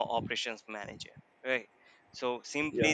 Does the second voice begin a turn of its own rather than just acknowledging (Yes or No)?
No